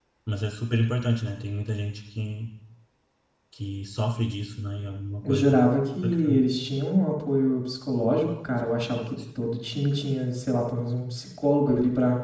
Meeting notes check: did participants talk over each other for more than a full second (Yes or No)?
No